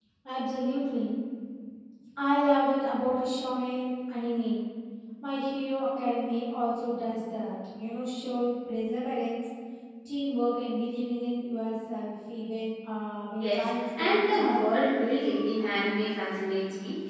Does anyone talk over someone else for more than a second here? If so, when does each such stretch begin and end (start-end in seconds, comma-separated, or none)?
13.4-14.6